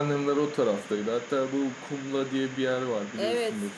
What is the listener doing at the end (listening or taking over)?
taking over